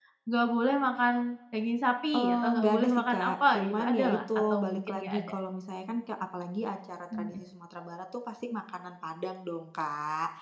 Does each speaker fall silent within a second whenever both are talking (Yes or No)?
No